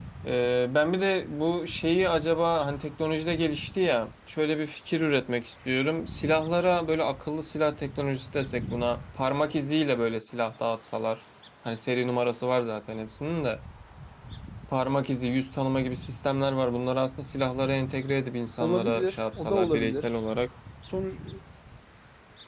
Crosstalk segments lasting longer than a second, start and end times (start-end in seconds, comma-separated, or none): 18.6-20.1